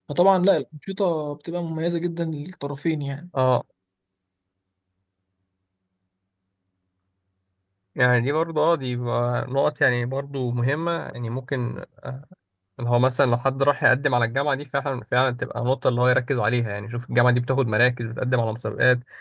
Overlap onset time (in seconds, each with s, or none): none